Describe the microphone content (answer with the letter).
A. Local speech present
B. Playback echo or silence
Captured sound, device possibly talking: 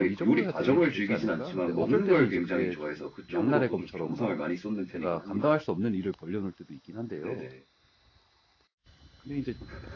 A